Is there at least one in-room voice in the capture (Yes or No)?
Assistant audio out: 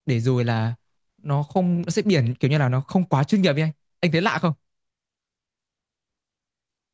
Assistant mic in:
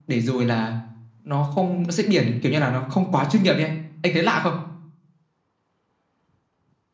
No